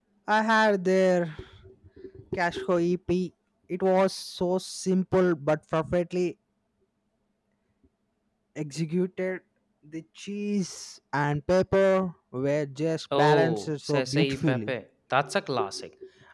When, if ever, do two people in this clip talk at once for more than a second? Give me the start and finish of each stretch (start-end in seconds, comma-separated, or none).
13.1-14.7